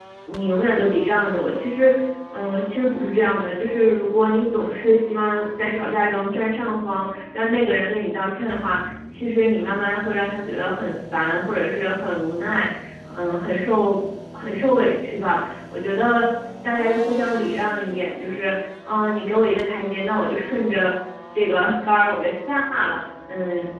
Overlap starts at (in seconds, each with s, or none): none